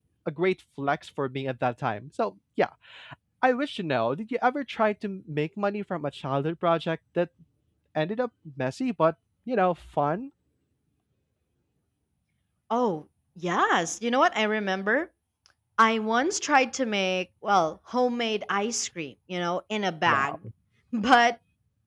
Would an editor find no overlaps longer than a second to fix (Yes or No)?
Yes